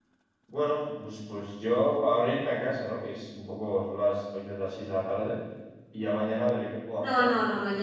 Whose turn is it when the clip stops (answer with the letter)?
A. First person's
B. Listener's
B